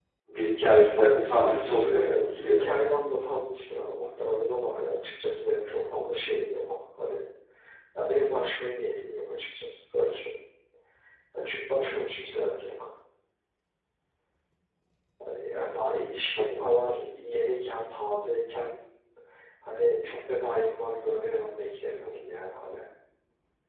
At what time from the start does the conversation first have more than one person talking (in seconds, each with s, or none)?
1.0 s